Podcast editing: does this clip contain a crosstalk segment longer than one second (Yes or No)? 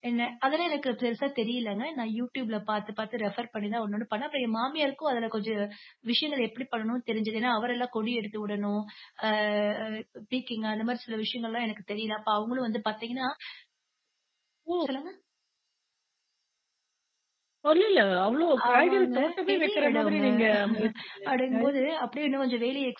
Yes